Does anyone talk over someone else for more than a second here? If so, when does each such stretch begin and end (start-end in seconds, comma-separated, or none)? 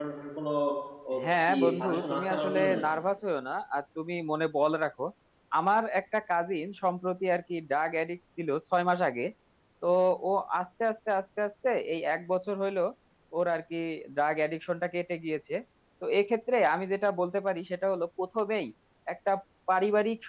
1.5-2.7